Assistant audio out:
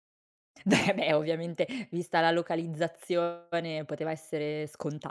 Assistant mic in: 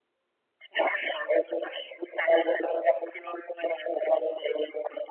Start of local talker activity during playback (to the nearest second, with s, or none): none